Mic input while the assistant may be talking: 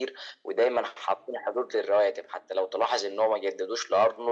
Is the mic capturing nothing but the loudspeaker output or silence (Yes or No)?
Yes